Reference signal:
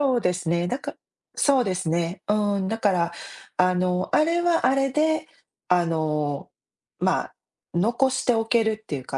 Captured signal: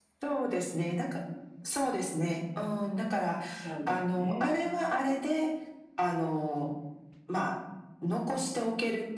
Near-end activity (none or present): present